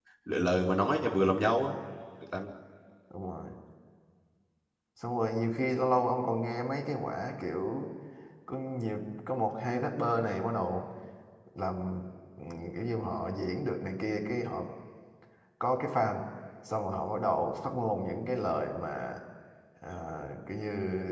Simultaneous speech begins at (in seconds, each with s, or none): none